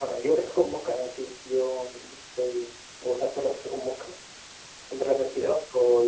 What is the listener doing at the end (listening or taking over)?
listening